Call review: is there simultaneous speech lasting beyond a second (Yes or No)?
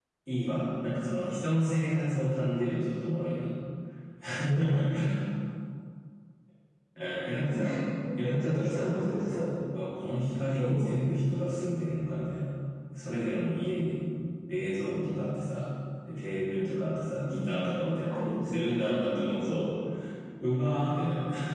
Yes